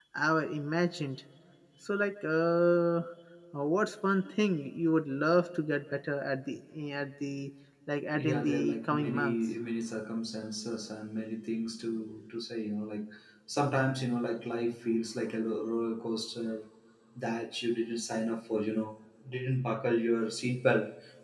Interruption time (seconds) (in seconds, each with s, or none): 8.1 s